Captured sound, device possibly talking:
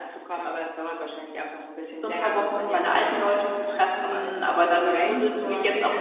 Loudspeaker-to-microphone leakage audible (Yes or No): Yes